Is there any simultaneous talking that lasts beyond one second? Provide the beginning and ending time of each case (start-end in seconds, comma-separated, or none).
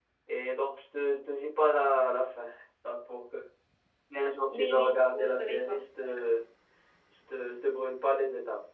4.5-6.3